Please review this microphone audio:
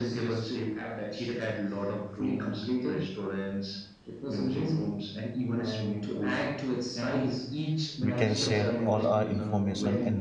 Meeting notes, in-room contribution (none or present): present